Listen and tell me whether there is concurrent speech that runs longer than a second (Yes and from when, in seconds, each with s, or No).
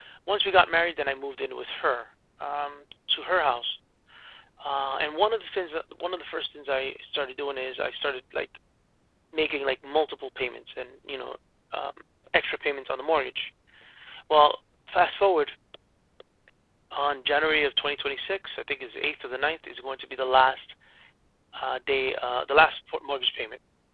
No